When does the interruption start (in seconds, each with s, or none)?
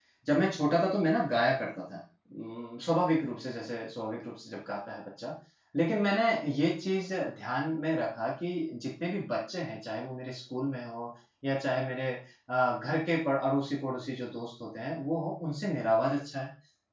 none